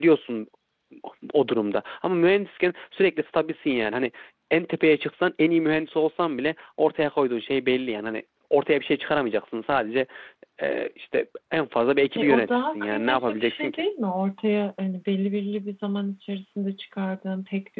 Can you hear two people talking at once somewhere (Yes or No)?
Yes